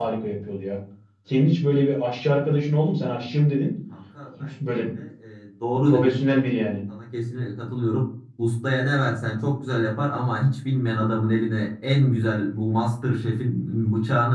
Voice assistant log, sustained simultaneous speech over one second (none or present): none